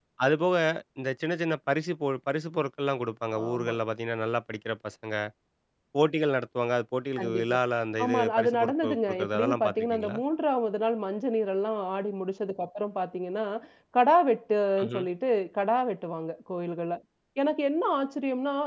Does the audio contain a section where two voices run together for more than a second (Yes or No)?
Yes